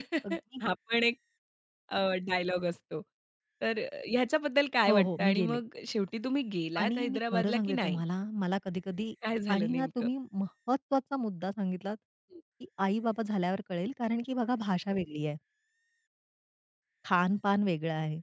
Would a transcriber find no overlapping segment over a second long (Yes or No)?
No